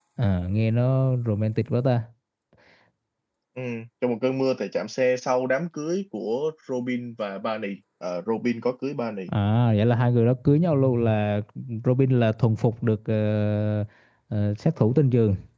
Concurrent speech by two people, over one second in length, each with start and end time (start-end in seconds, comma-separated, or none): none